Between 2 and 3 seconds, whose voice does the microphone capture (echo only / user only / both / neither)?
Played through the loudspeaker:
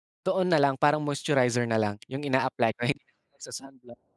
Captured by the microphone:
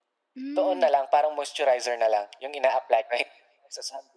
echo only